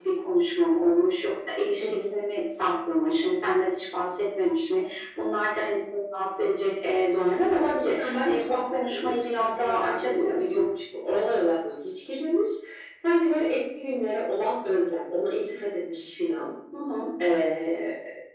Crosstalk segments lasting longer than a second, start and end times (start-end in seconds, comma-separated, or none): 7.5-10.6